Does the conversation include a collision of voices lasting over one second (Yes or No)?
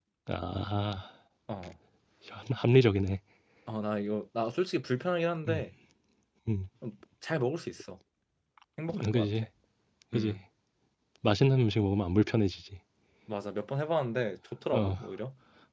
No